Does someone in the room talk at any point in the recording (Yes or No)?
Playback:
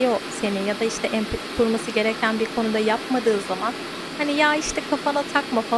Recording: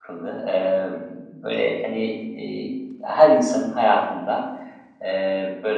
Yes